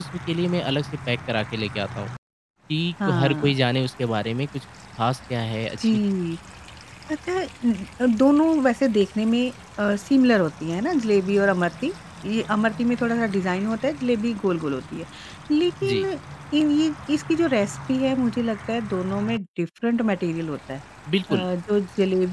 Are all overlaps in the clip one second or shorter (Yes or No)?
Yes